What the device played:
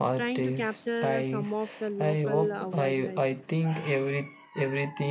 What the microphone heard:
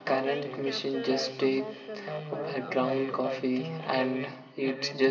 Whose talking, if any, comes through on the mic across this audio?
both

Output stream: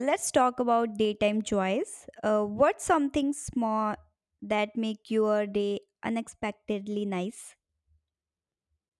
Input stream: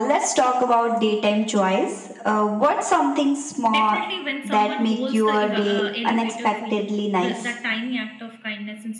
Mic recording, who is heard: both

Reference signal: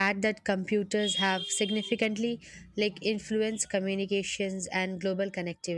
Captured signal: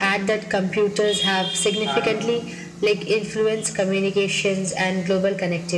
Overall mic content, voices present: both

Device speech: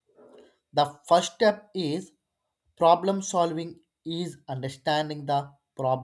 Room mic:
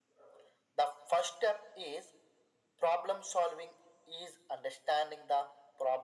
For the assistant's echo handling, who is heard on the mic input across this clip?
echo only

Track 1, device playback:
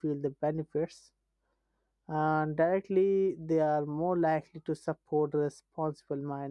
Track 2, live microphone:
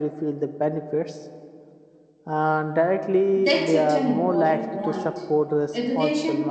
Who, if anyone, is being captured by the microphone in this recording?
both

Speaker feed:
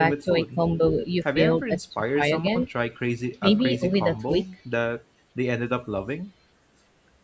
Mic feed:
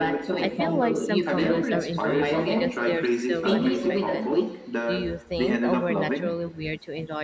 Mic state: both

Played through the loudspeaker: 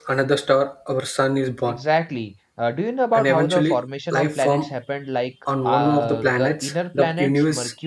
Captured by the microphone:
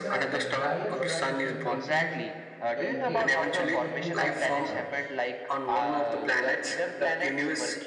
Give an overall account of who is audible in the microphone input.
both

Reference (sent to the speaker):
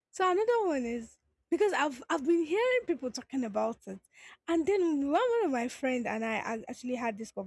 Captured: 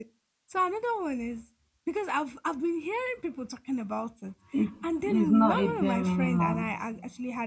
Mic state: both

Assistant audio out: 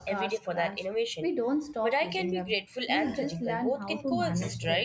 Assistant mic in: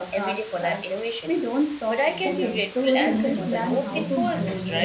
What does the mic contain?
both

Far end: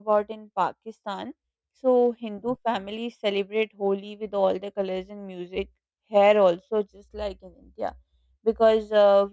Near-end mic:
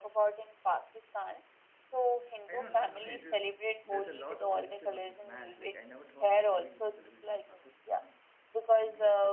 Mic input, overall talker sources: both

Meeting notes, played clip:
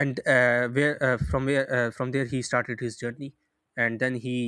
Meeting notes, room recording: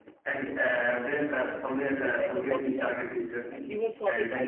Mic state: both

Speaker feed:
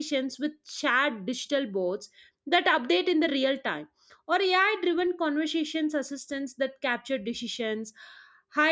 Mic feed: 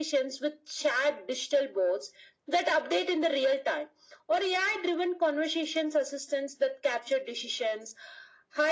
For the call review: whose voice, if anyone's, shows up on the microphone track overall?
echo only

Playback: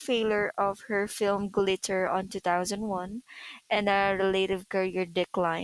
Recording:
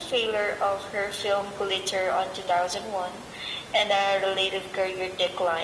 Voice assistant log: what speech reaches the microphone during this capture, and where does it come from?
echo only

